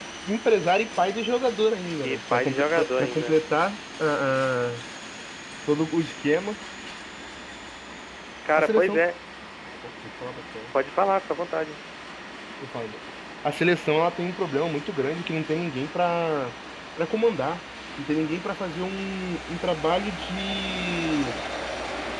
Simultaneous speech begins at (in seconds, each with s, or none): 2.0 s